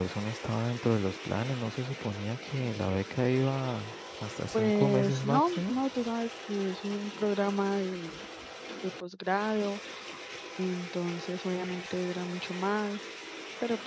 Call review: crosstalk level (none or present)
present